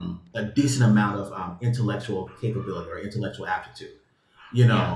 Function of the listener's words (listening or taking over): listening